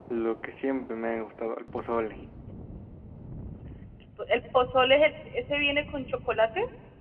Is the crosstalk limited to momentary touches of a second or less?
Yes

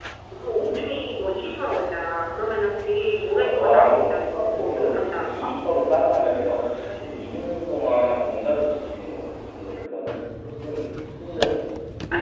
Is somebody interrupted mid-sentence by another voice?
Yes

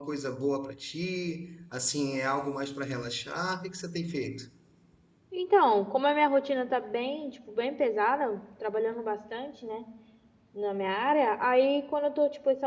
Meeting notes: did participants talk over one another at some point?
No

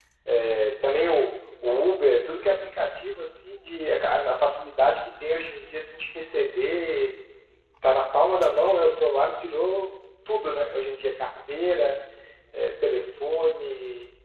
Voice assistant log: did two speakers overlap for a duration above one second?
No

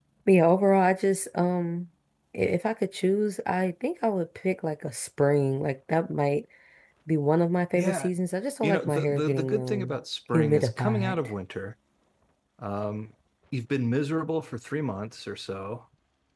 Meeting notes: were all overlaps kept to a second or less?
No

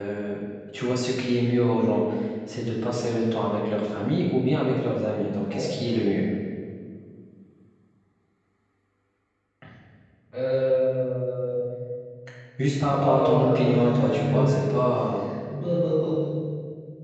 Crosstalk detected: Yes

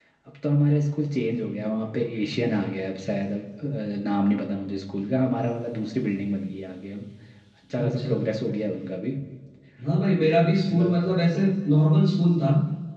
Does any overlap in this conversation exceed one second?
No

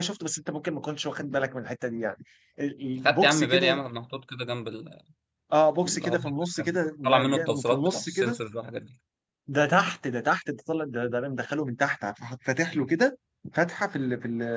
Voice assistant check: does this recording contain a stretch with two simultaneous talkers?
Yes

